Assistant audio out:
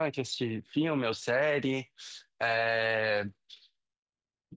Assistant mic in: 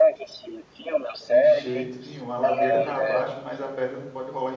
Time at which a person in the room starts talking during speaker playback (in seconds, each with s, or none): 1.2 s